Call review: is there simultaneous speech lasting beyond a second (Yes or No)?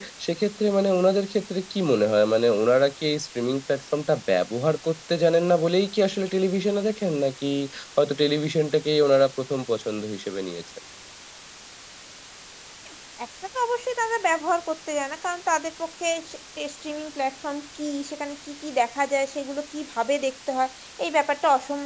No